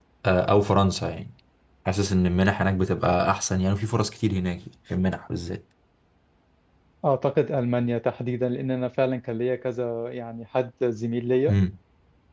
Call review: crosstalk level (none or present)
none